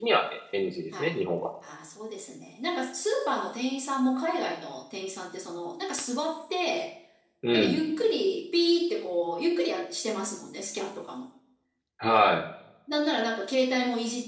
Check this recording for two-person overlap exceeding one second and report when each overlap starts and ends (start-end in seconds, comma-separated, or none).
none